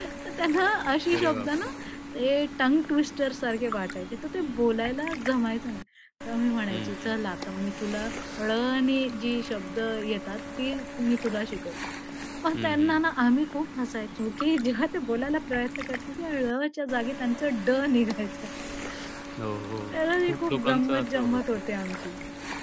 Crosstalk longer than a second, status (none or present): present